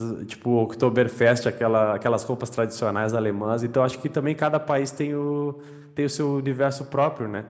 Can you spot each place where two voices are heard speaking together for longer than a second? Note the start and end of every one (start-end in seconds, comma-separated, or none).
none